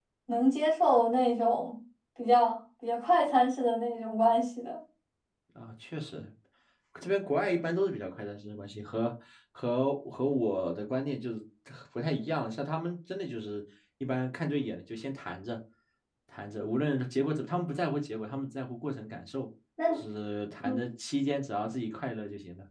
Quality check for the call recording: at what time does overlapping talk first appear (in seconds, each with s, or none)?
none